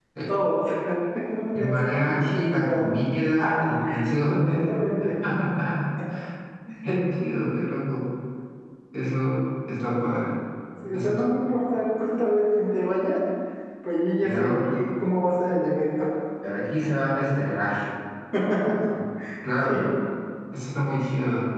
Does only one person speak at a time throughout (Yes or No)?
No